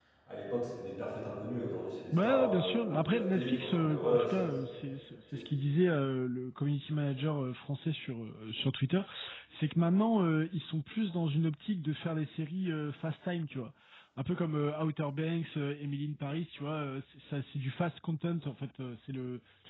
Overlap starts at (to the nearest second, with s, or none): 2 s